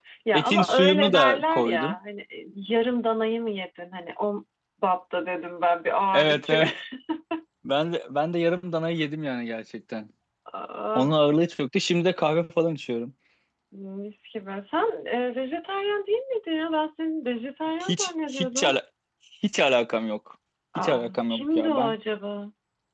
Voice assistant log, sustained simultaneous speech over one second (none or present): present